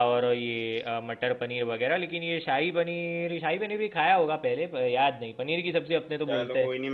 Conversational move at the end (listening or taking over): taking over